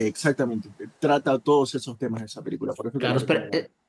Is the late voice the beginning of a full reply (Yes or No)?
Yes